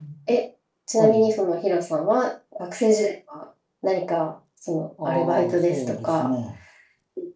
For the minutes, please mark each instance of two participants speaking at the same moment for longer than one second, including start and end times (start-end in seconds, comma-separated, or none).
5.0-6.3